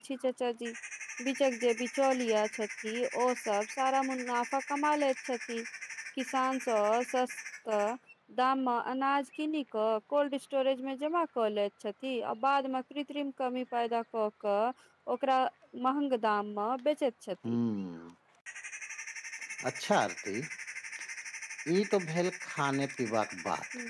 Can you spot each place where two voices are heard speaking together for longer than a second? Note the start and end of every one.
none

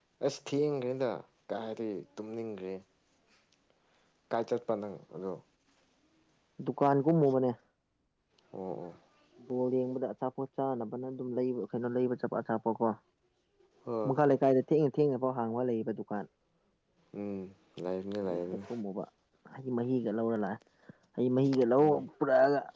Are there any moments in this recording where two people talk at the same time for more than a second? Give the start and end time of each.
none

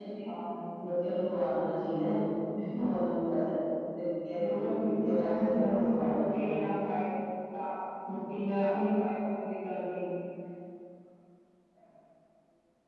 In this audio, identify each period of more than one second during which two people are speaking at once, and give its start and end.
4.4-6.5

